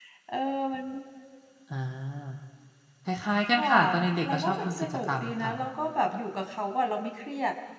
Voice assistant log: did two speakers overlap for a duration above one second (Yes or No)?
Yes